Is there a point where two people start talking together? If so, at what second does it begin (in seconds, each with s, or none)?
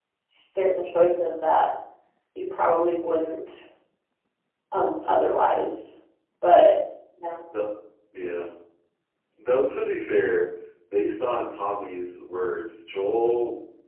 none